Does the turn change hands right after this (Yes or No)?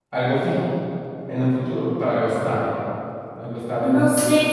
Yes